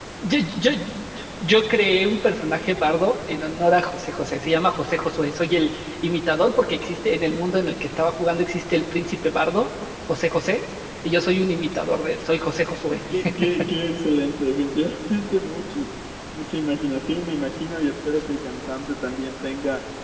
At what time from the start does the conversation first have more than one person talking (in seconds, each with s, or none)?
none